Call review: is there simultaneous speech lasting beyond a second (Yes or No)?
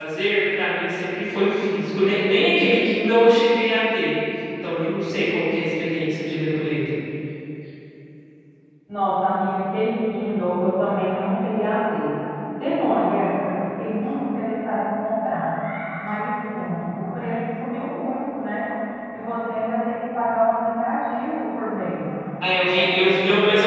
No